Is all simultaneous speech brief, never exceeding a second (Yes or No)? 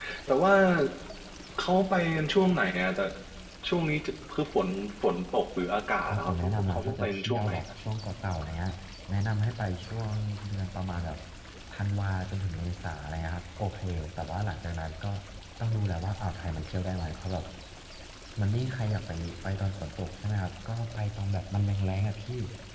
No